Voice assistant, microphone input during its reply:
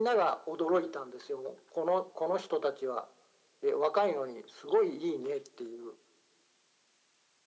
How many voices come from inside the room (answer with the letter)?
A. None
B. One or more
A